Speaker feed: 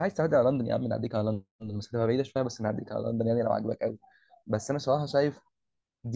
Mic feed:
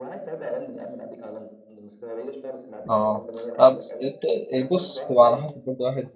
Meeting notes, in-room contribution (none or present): present